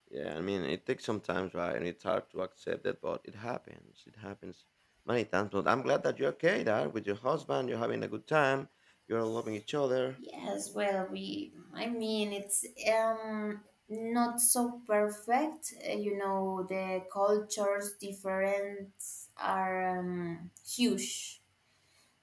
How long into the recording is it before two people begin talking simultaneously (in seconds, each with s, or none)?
none